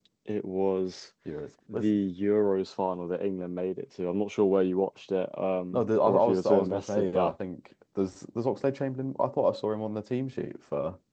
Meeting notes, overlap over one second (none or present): present